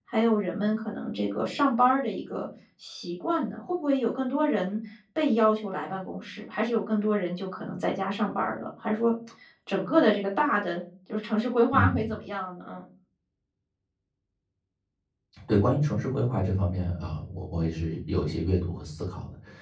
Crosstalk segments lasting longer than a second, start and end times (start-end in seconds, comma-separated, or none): none